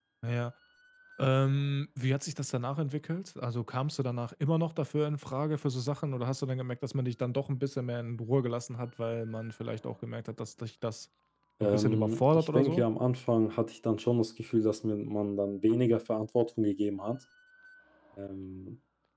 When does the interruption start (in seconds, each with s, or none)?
11.6 s